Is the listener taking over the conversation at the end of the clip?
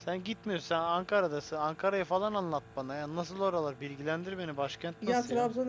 Yes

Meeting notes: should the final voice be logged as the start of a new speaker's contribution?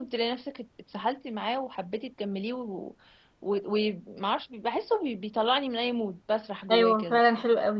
Yes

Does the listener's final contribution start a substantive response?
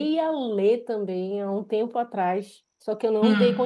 No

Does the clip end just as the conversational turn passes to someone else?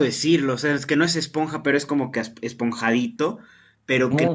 No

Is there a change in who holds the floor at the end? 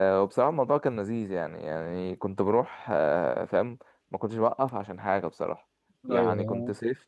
No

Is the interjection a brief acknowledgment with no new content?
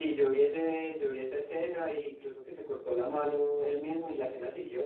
No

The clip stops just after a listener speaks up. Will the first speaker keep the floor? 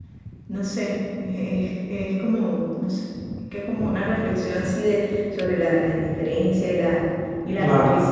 Yes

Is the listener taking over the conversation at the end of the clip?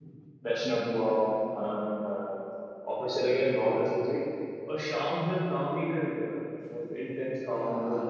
Yes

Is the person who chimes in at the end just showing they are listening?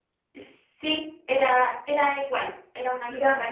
Yes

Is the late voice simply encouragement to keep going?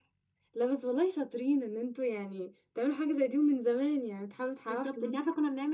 No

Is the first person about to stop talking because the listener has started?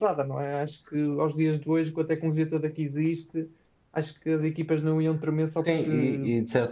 Yes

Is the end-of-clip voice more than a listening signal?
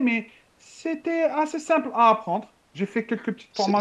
Yes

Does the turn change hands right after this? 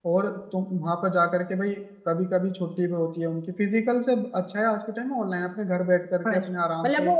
Yes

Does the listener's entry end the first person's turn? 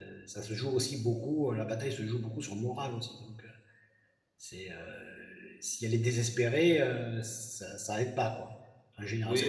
Yes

